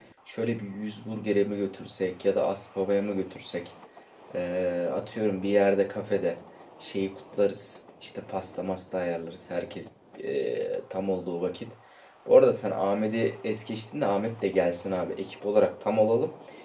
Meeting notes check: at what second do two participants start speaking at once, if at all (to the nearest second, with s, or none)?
none